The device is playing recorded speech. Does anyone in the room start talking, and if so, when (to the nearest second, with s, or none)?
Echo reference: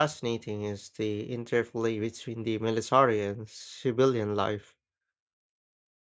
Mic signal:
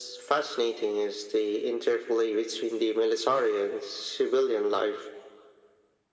none